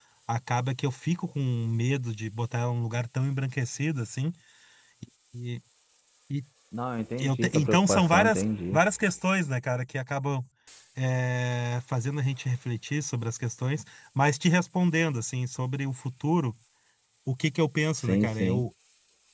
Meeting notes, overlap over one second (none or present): present